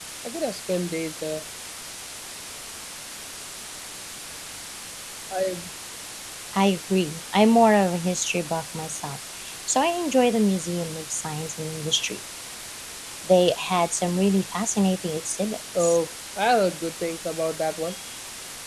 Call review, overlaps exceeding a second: none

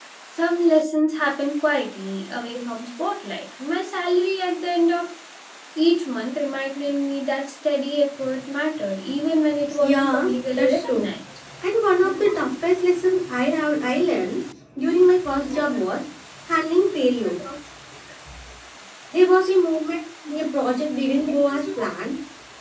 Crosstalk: present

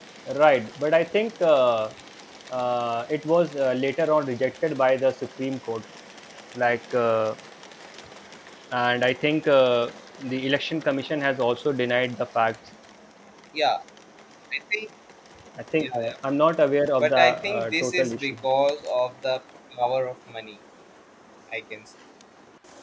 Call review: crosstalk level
present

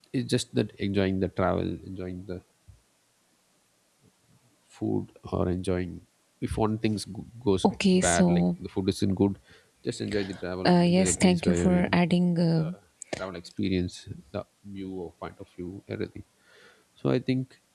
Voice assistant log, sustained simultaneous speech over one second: present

